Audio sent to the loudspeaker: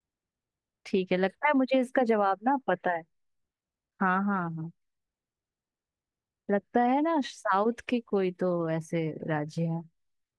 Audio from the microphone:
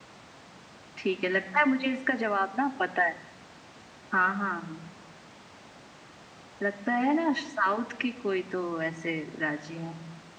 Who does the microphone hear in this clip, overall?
echo only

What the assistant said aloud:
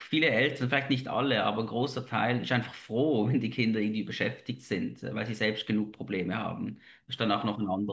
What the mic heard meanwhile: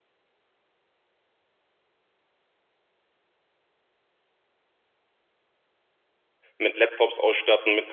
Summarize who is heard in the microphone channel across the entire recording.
user only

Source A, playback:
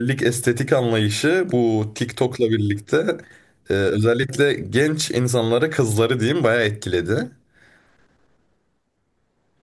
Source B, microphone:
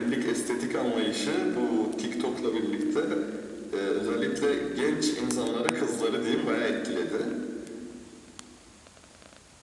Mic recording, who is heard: echo only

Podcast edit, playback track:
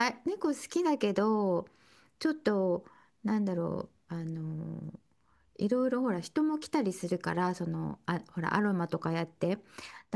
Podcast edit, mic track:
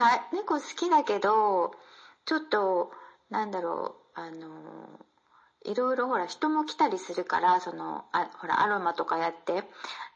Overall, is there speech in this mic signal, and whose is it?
echo only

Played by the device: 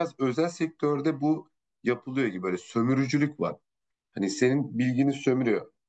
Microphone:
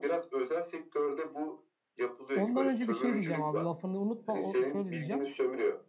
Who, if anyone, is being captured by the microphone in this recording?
both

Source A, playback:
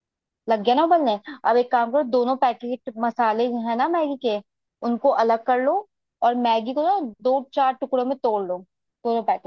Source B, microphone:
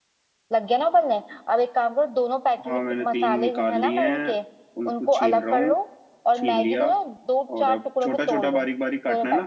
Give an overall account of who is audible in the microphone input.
both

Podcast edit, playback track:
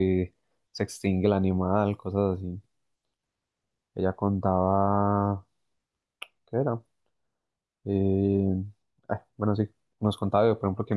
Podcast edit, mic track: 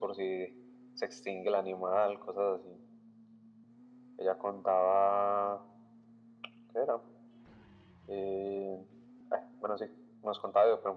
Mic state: echo only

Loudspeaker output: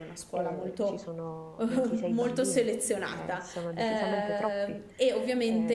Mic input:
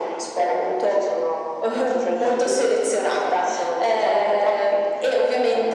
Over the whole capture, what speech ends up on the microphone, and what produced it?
echo only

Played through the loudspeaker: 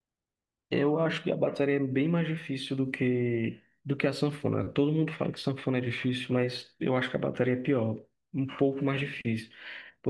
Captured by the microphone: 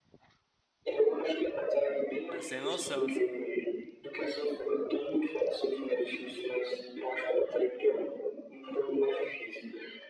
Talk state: both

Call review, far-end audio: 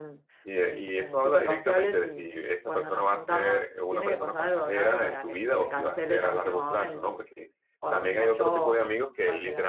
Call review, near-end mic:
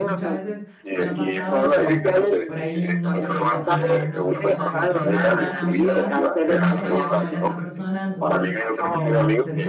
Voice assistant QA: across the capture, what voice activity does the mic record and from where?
both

